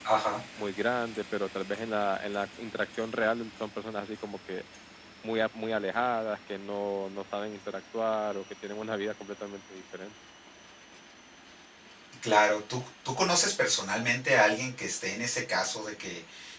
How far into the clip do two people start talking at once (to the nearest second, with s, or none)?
none